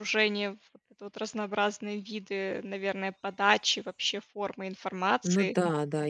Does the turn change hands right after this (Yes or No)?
Yes